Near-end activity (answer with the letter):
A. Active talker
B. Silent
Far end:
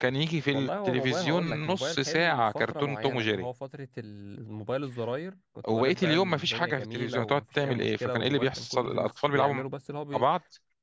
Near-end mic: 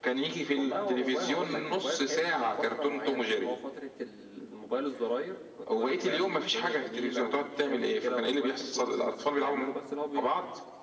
B